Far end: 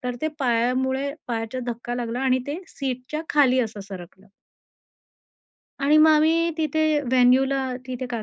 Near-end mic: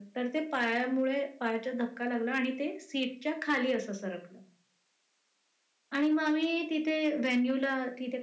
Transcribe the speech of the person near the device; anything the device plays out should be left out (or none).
none